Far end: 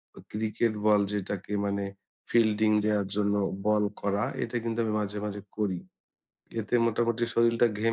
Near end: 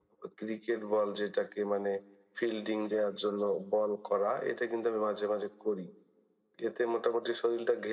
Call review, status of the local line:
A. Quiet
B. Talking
A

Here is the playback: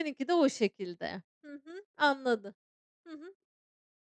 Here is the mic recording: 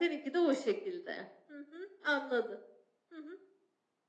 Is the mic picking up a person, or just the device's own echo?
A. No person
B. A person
A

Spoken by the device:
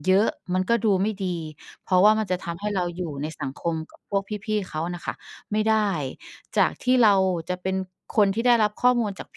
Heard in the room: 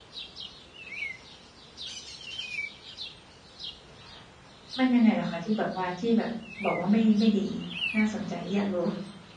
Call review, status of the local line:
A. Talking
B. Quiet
A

